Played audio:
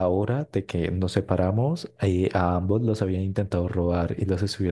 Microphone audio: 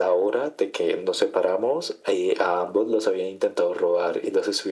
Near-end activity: none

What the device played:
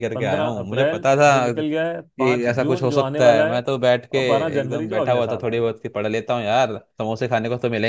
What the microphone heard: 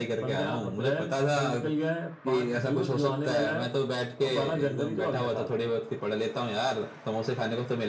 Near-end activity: none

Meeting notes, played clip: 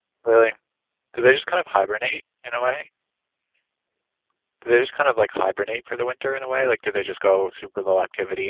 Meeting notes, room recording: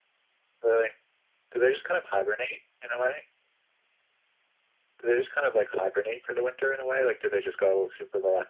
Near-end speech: none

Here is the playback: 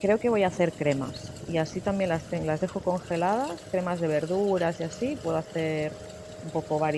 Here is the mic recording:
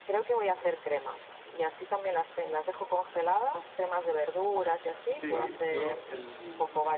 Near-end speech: present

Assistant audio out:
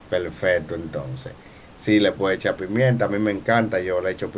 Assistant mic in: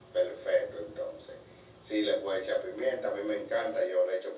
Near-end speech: none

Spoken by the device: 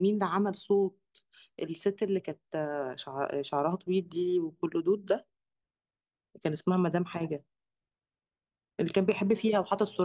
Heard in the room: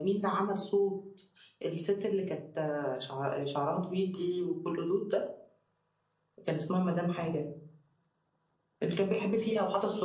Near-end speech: none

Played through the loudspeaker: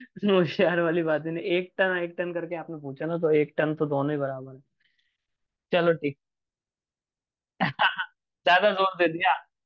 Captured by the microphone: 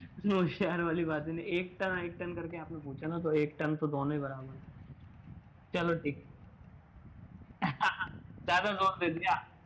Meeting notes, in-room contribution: none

